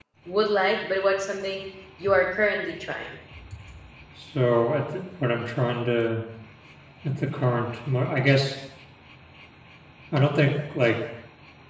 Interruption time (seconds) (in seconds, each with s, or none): none